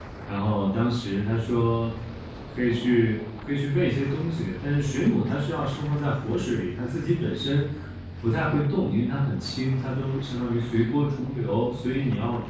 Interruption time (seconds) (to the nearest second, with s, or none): none